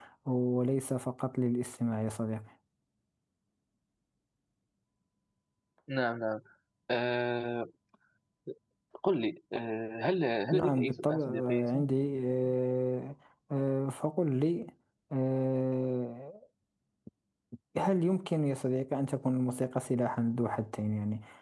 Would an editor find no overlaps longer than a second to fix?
No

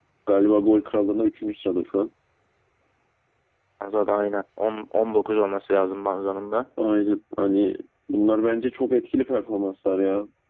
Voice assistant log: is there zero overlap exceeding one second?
Yes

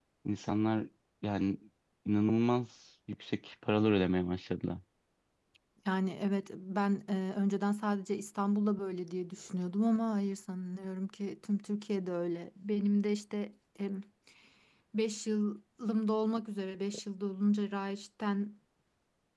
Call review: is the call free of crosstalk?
Yes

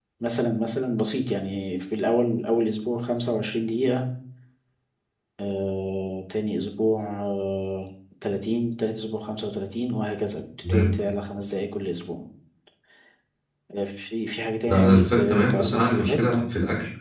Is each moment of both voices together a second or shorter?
No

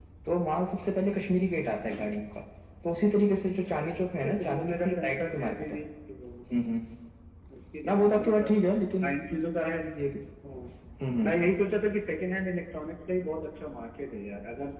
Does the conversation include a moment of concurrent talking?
Yes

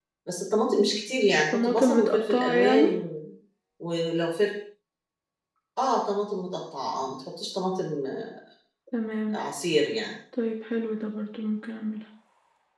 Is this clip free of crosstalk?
No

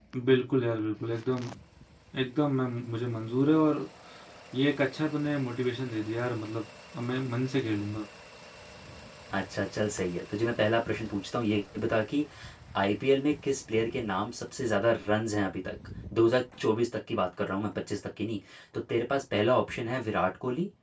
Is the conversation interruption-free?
Yes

